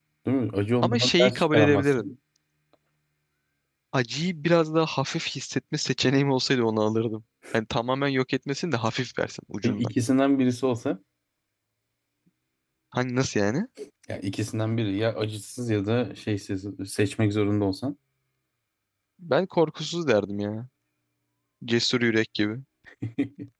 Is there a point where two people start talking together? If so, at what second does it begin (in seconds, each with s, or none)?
0.8 s